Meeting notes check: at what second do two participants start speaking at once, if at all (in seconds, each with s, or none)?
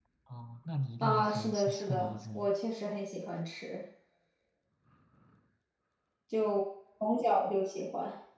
1.0 s